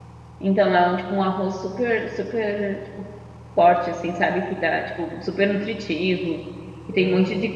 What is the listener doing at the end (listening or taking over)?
listening